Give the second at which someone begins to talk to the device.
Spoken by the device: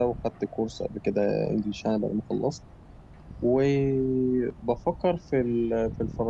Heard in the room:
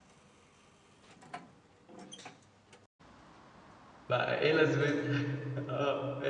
4 s

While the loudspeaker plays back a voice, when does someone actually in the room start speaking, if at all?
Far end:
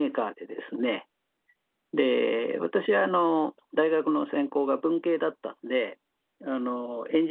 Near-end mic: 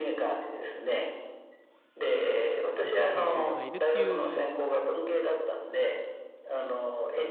3 s

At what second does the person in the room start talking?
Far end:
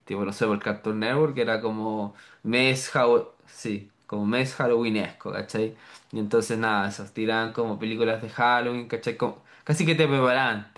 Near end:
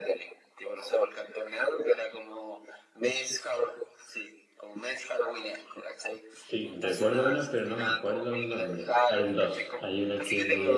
6 s

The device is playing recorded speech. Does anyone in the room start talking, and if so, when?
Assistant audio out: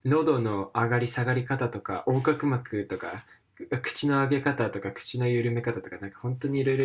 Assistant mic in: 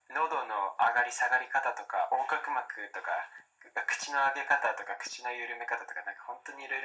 none

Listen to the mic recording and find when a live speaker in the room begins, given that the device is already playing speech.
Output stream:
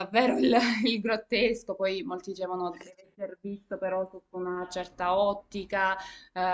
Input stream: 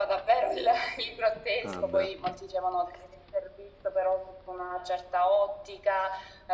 2 s

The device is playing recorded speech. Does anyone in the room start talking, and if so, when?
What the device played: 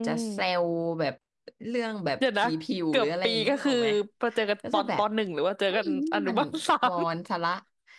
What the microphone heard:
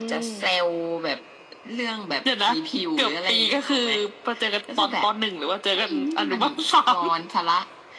none

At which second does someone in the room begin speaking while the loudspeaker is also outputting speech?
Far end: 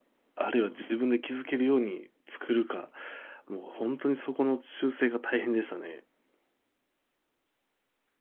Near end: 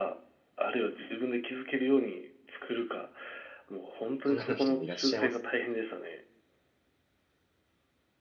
4 s

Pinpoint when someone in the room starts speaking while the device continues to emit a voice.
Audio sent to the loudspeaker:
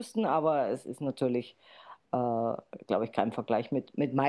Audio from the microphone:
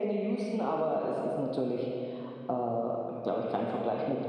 none

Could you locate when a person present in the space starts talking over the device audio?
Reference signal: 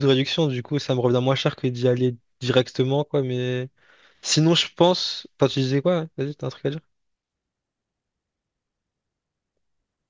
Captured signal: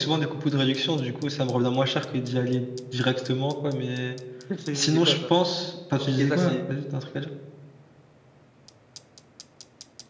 5 s

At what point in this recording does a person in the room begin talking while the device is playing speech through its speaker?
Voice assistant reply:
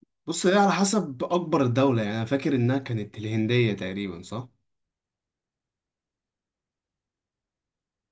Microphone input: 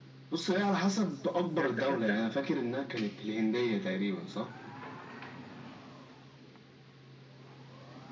2 s

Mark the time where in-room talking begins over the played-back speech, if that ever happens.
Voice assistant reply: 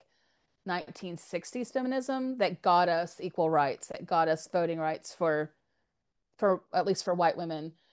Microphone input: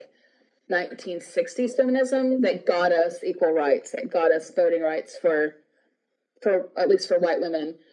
none

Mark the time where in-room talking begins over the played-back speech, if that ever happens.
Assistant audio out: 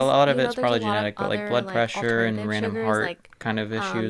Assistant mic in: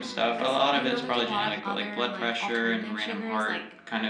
none

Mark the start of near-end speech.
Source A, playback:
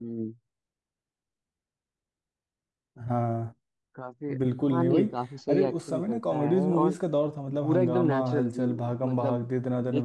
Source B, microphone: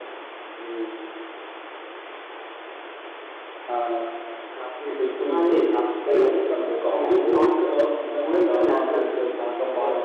none

